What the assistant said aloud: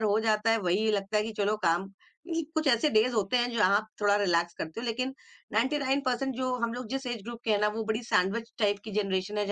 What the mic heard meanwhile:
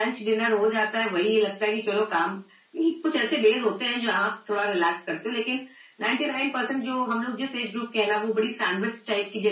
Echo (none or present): present